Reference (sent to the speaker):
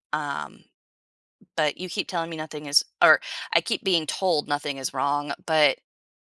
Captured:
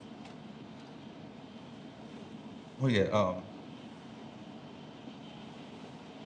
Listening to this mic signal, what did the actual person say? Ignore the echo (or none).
Well, yeah, um,